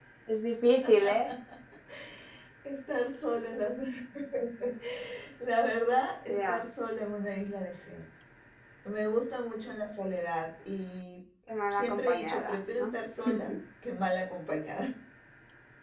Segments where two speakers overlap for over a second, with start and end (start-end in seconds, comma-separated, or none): 11.7-13.0